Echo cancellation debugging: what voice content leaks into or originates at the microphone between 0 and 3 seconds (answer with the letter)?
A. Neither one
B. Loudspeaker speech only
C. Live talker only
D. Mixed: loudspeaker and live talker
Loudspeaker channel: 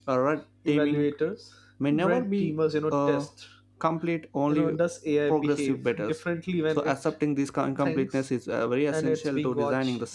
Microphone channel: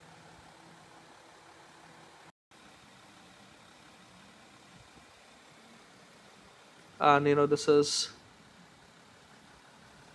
A